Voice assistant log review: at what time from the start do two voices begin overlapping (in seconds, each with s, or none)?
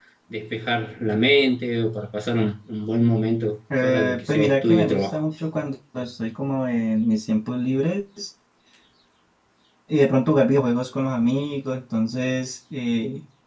3.7 s